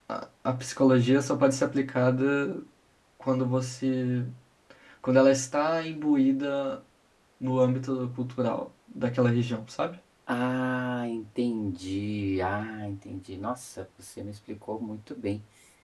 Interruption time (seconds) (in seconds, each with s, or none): none